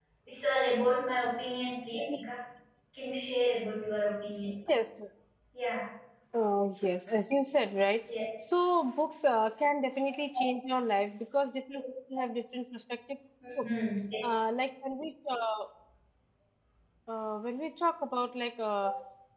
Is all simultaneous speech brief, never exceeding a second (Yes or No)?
Yes